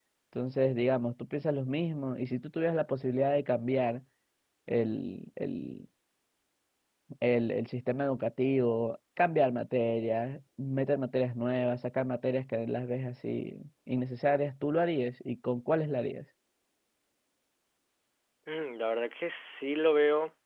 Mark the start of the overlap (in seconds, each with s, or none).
none